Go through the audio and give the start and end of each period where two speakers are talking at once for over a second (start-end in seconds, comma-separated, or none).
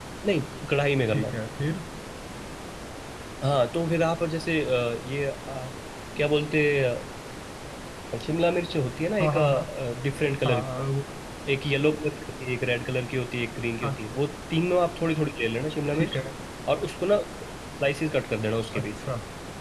none